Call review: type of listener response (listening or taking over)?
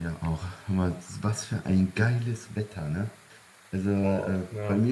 listening